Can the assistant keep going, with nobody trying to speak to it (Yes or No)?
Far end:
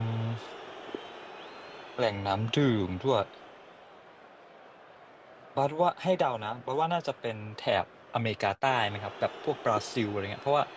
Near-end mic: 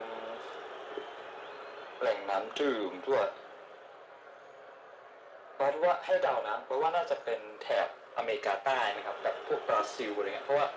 Yes